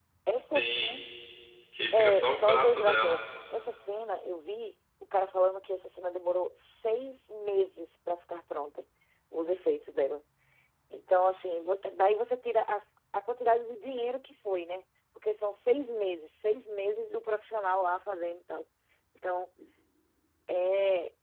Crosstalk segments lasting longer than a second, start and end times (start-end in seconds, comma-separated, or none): 1.9-3.2